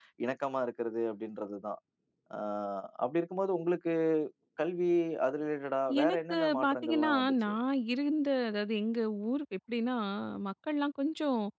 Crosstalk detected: Yes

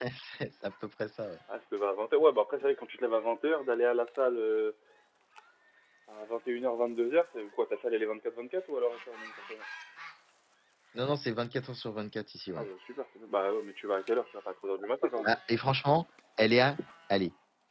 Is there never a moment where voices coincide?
Yes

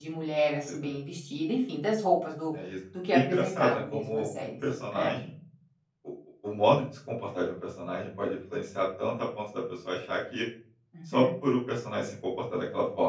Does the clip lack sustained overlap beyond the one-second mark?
No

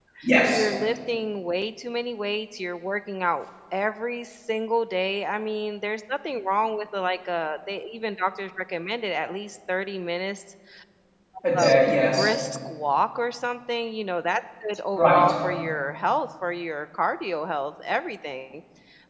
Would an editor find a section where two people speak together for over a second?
No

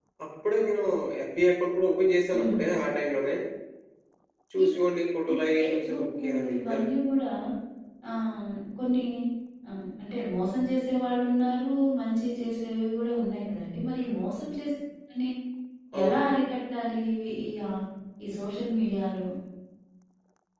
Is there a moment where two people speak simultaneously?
Yes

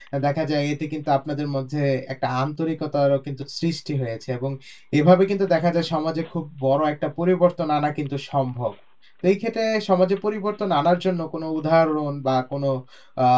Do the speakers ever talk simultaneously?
No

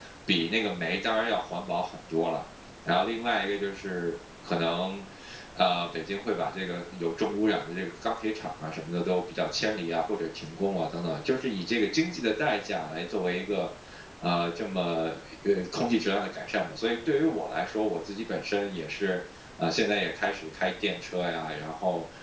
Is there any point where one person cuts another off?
No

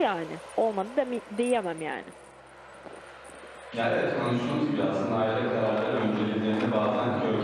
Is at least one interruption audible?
No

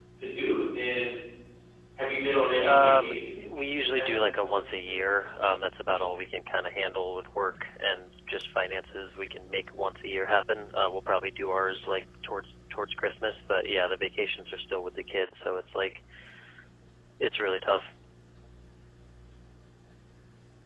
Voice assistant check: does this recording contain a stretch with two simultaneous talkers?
Yes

